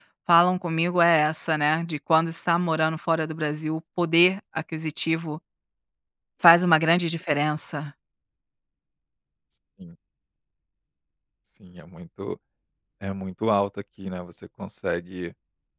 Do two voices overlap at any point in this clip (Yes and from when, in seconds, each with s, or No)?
No